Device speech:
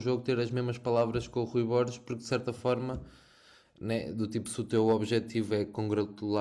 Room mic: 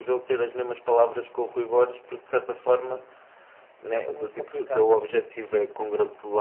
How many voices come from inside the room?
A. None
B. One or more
B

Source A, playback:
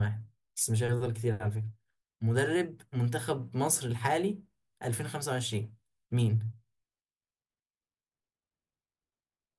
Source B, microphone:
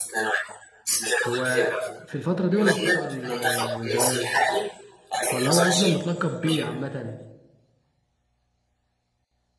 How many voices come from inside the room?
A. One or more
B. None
A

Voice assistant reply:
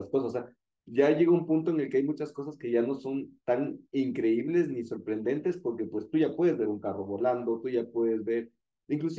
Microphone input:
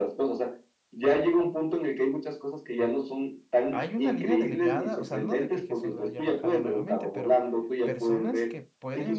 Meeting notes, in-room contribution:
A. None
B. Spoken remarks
B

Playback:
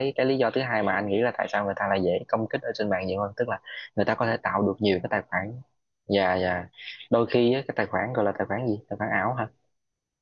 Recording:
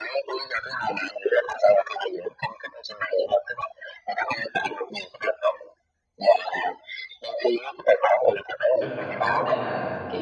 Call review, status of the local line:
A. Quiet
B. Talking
B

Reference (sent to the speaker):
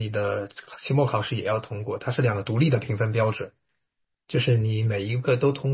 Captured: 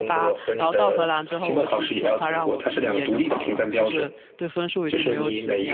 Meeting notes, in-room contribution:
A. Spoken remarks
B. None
A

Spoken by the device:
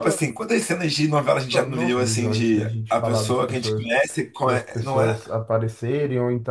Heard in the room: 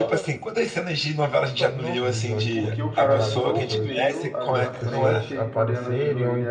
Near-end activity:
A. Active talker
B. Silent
A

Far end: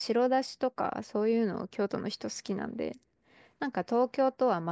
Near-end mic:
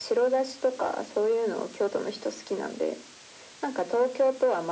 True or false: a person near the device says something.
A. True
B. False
B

